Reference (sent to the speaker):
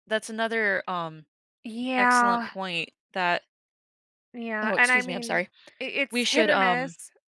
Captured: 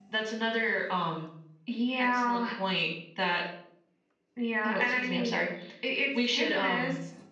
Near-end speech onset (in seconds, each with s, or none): none